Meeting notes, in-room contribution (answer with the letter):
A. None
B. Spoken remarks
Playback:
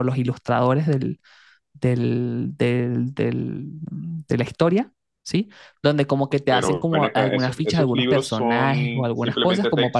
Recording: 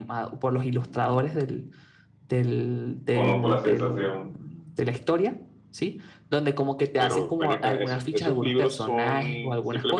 B